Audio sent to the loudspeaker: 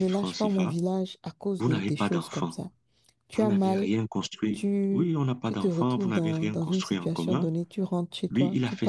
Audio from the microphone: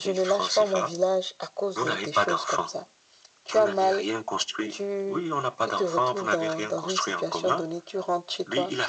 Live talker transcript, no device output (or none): none